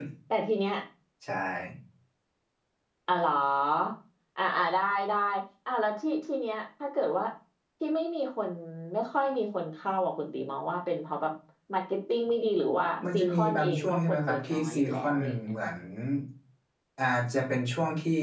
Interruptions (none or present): present